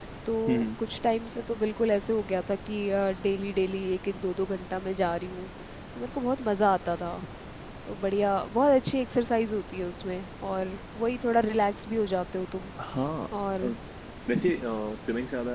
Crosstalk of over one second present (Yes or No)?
No